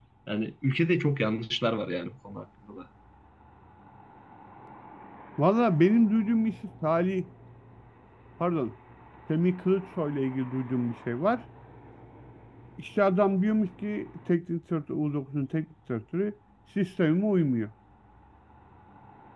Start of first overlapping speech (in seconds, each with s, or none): none